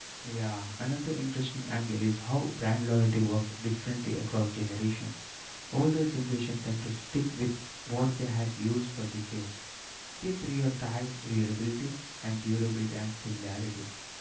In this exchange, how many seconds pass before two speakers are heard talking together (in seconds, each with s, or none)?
none